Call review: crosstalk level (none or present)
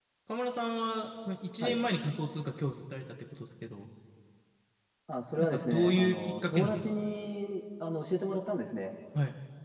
present